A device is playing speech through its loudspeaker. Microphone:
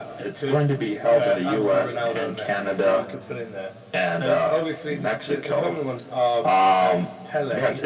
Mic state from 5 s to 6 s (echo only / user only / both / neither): echo only